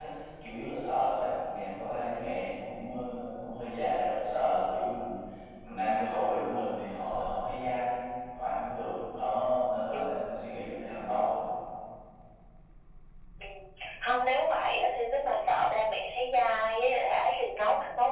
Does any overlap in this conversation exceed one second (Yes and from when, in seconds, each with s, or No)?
No